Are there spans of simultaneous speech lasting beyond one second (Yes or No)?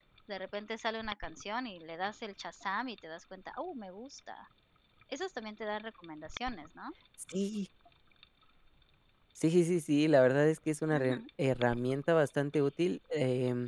No